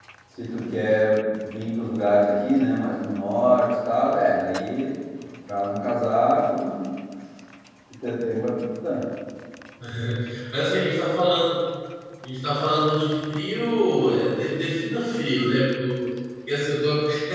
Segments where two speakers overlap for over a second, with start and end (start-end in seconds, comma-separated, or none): none